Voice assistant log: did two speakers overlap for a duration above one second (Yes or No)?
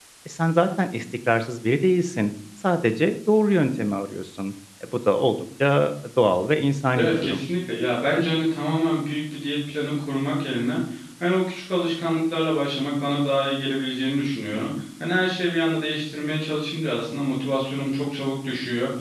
No